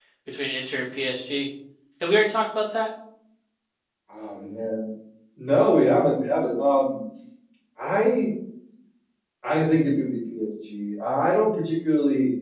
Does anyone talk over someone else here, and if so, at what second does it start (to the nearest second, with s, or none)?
none